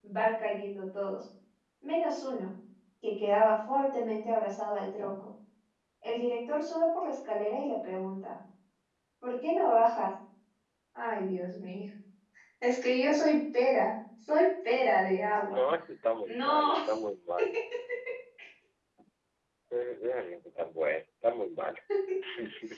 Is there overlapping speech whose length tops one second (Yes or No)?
No